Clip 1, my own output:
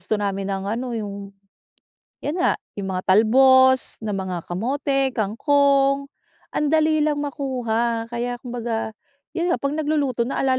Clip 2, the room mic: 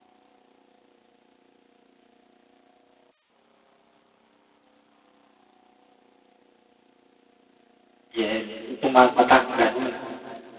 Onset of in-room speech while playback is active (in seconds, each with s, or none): 8.1 s